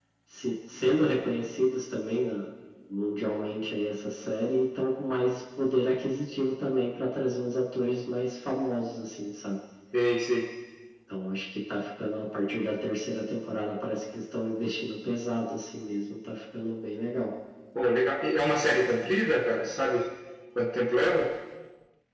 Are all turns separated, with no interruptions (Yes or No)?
Yes